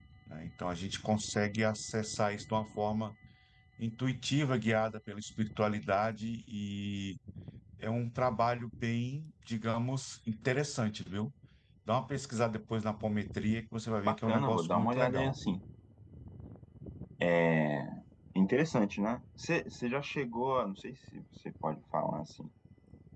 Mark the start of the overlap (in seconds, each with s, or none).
14.0 s